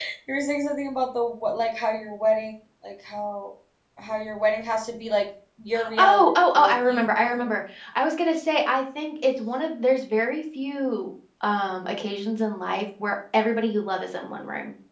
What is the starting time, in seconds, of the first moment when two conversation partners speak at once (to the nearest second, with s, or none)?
6 s